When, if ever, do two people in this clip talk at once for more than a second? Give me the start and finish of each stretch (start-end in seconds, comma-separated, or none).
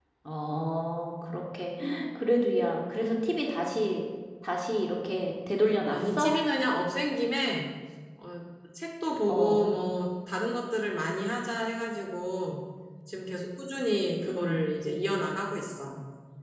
none